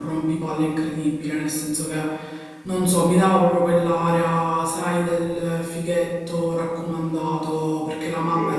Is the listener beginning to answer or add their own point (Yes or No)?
No